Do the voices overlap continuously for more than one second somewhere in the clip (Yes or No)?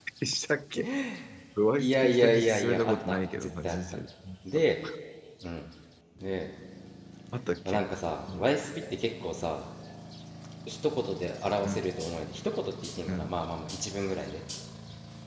Yes